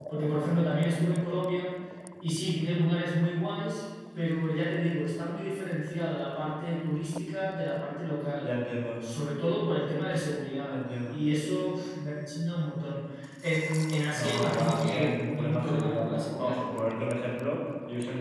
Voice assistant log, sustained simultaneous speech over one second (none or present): present